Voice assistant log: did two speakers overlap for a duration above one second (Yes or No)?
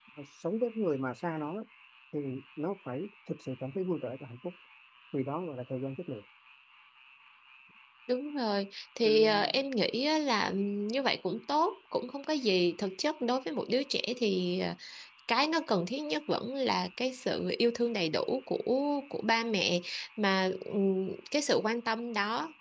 No